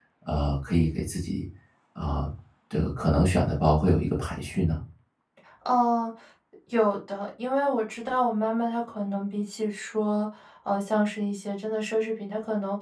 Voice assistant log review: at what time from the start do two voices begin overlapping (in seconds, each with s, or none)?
none